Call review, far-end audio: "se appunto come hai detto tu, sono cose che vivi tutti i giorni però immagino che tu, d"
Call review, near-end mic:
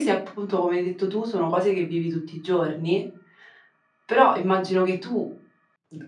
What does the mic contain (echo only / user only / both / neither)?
echo only